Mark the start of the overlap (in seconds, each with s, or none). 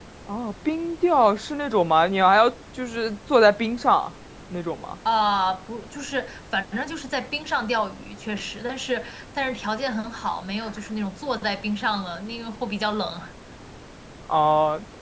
none